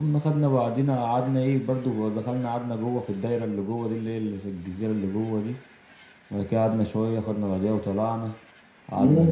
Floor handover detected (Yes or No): Yes